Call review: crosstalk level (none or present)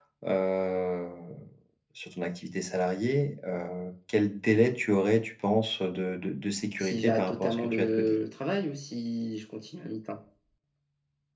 present